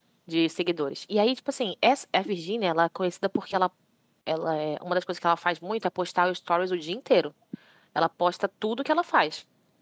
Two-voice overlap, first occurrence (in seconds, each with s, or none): none